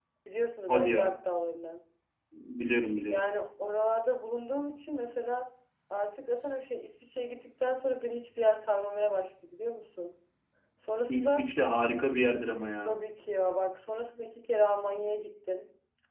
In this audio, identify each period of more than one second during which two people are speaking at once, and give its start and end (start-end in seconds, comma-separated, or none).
none